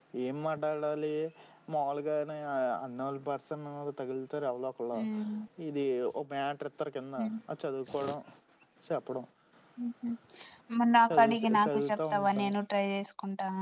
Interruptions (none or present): present